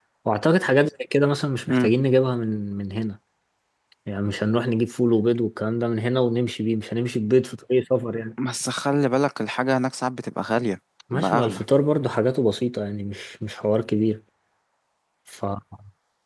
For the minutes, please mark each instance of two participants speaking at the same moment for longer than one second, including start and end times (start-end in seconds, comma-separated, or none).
none